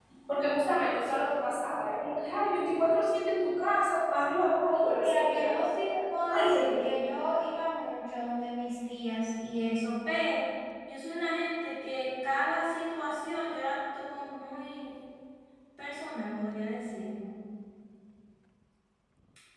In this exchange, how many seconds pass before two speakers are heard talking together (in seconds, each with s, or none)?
4.7 s